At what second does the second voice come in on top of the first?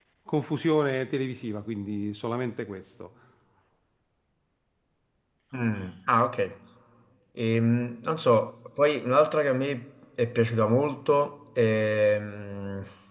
none

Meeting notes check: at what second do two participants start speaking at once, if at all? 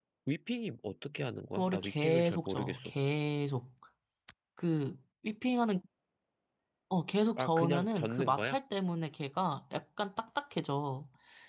1.6 s

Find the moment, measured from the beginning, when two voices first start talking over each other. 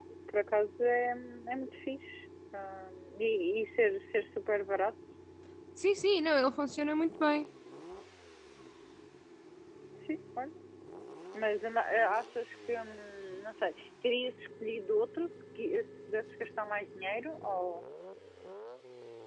none

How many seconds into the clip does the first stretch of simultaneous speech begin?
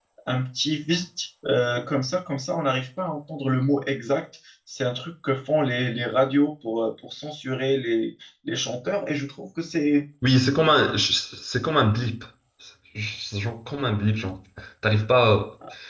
none

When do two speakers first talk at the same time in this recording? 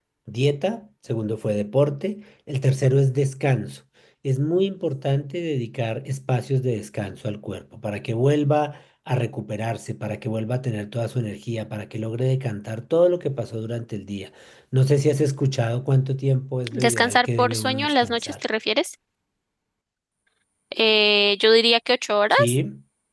16.7 s

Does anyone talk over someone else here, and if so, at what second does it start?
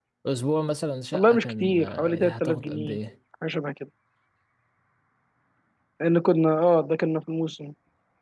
1.1 s

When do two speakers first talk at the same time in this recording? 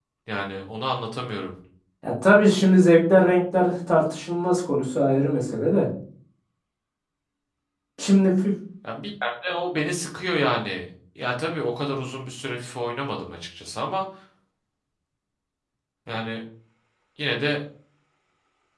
none

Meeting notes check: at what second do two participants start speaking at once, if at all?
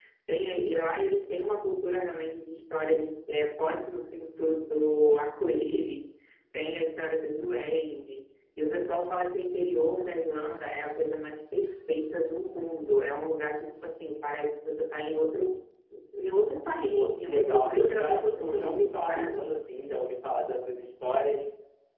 16.9 s

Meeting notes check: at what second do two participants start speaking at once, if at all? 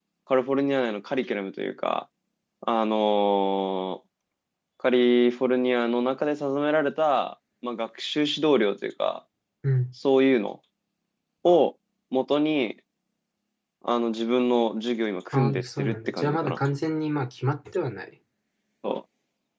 15.3 s

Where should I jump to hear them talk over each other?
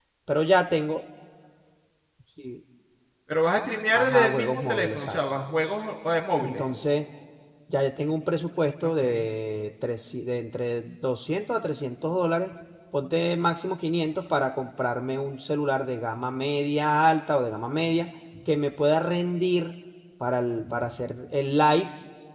3.9 s

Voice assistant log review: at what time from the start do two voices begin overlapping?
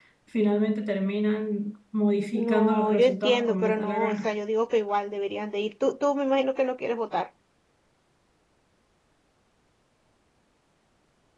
2.3 s

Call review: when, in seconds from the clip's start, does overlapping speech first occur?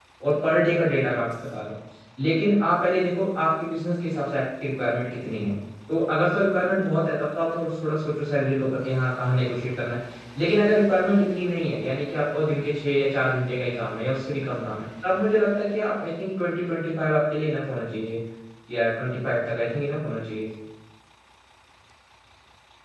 none

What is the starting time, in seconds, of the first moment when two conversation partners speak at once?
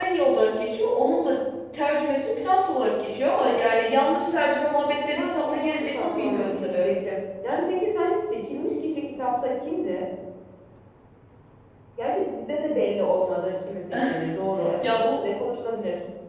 4.9 s

